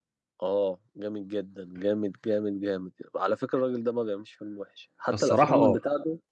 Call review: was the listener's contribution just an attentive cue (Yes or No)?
Yes